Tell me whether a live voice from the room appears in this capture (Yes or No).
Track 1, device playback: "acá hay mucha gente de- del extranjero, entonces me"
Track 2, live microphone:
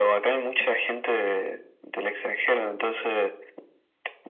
No